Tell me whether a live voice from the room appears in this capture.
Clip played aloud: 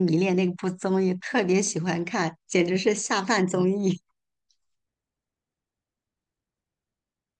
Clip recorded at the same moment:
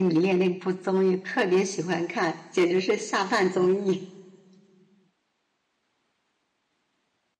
No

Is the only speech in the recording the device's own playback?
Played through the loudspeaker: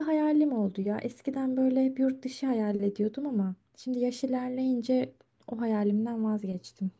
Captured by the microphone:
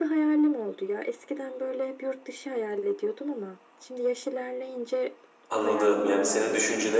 No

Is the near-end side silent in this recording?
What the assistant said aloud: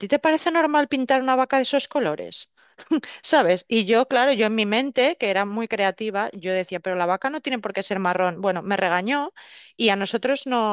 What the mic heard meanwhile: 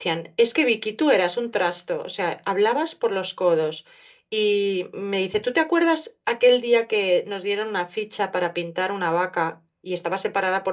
No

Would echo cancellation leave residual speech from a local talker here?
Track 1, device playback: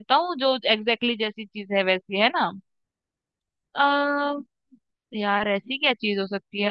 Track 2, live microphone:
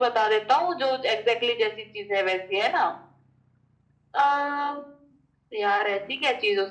No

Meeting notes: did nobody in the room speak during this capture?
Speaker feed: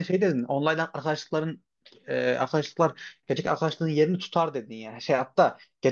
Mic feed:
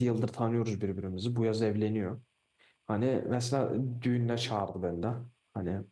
No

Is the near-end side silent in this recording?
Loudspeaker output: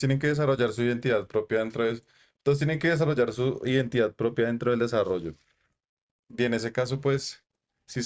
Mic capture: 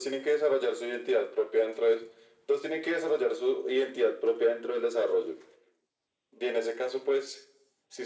Yes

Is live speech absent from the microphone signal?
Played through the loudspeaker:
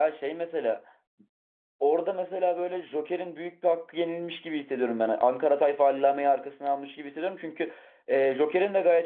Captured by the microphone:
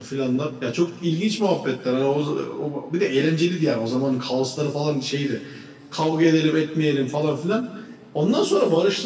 No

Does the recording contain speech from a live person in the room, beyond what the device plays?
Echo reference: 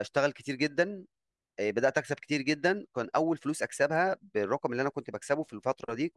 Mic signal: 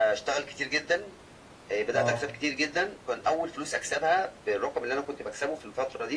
Yes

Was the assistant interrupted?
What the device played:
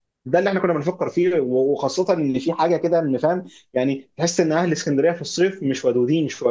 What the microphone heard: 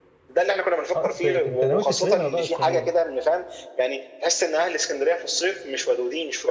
Yes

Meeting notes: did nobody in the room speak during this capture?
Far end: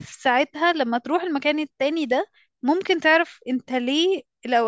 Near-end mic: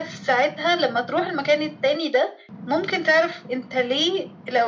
Yes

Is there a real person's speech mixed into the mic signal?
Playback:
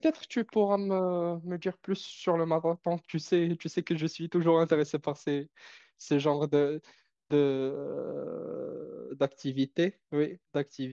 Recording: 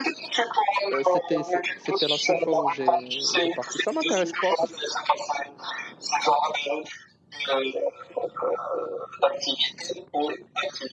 Yes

